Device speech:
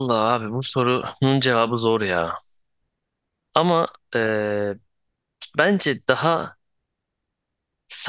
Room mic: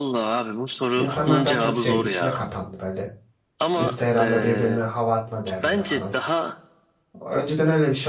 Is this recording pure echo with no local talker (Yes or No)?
No